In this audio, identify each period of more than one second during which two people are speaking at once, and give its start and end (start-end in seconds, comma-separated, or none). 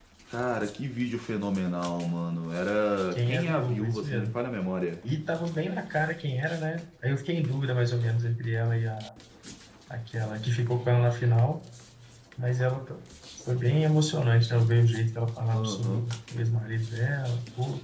3.1-4.3